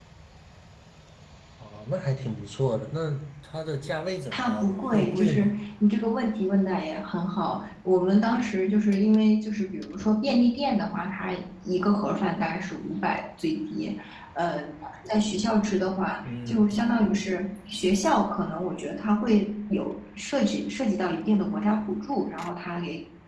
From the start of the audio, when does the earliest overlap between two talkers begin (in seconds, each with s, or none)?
4.3 s